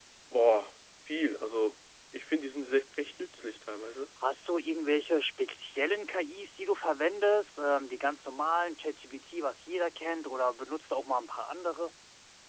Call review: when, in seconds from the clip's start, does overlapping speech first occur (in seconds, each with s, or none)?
none